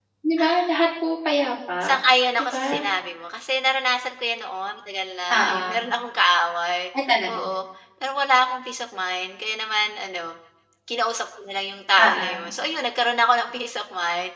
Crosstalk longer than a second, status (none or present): none